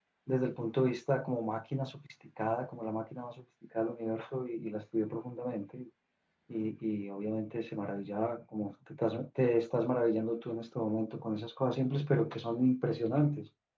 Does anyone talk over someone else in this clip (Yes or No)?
No